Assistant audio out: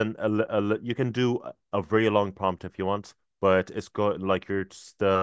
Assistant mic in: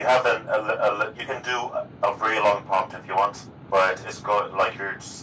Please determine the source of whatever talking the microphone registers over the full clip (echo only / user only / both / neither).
echo only